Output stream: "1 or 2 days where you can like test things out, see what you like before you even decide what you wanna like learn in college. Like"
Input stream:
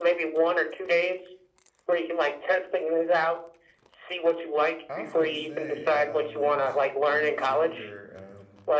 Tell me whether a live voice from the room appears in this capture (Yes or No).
Yes